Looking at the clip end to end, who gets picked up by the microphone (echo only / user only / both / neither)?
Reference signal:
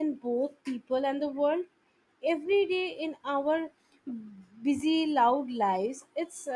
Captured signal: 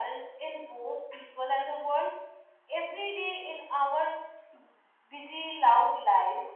echo only